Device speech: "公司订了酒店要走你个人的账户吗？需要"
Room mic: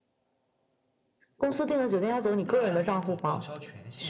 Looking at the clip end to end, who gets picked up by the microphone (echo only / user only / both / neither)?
both